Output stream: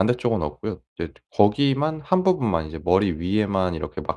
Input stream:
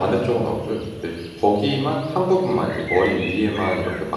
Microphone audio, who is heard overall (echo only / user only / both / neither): echo only